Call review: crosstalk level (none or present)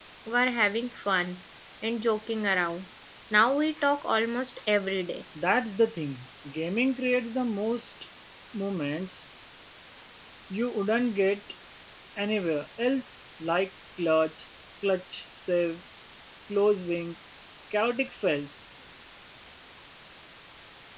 none